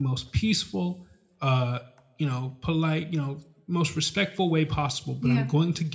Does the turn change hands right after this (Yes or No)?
No